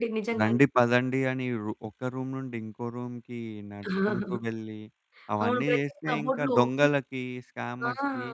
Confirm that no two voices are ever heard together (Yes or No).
No